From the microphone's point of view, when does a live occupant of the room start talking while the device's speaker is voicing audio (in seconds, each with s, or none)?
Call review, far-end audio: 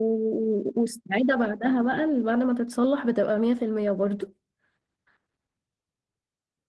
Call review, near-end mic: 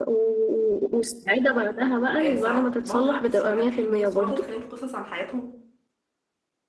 2.2 s